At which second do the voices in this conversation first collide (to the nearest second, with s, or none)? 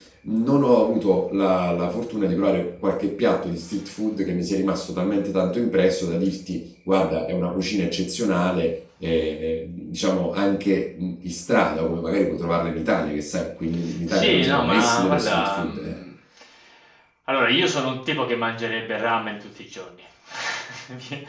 14 s